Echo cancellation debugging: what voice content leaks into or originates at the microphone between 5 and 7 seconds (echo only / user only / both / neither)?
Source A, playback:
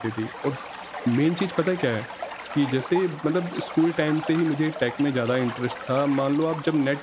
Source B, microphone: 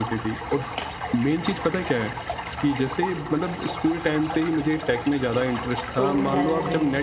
both